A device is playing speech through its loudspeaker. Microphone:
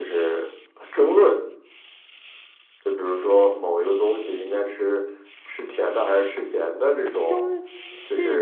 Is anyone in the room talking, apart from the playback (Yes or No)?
Yes